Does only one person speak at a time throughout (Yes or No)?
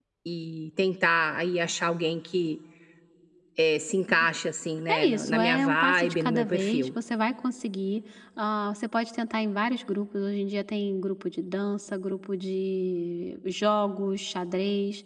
No